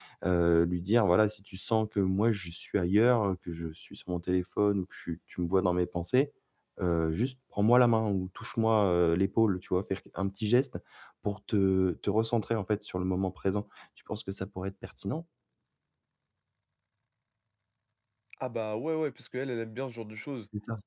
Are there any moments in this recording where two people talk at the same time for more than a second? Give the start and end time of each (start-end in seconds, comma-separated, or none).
none